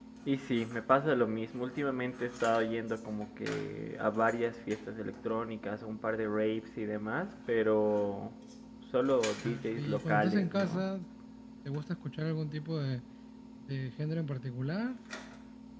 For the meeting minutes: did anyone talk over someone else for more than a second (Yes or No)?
Yes